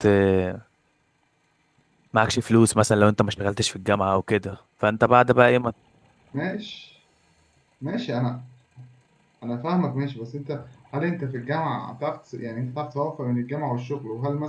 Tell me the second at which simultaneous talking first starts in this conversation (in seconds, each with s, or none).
none